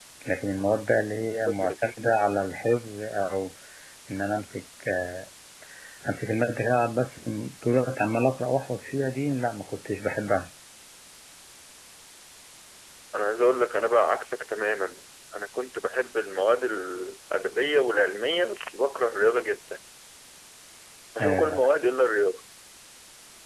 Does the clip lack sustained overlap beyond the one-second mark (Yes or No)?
Yes